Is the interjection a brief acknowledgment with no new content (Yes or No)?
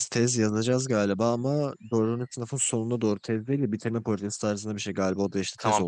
No